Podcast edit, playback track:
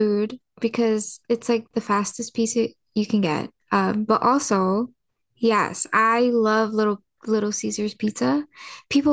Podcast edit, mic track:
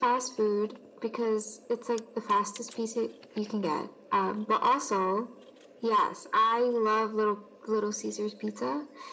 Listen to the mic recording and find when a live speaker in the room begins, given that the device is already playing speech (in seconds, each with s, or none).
none